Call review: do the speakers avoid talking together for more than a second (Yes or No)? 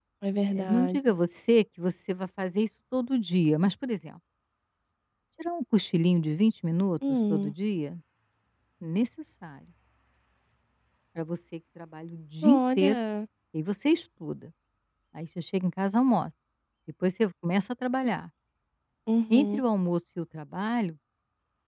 Yes